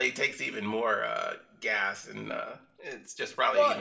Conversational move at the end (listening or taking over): taking over